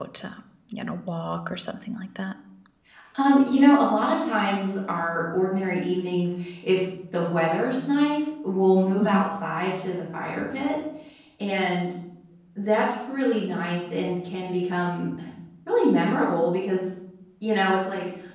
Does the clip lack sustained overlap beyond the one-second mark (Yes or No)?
Yes